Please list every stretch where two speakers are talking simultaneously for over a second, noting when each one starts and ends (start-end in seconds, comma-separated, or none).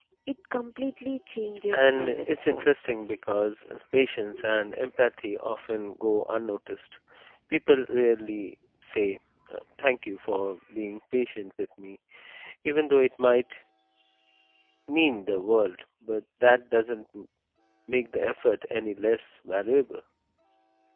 1.7-3.0